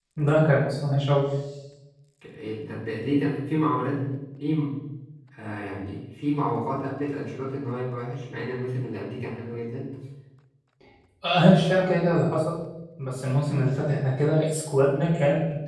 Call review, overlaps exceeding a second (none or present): none